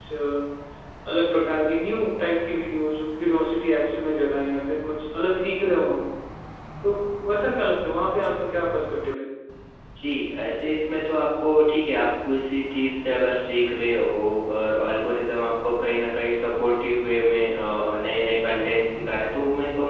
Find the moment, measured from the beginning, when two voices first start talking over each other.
none

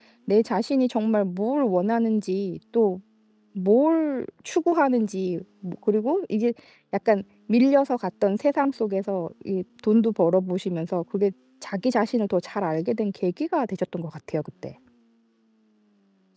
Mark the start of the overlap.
none

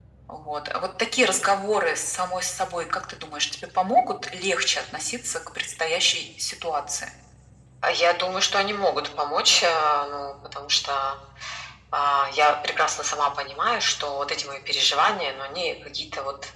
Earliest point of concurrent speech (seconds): none

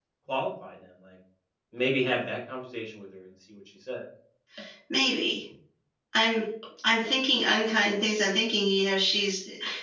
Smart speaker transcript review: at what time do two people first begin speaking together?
none

